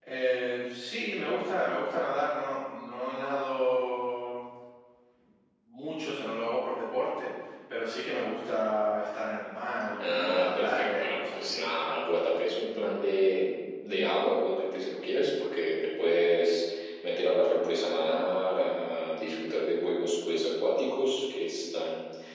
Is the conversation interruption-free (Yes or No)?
No